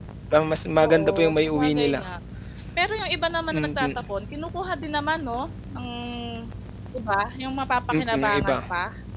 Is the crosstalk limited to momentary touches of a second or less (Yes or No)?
No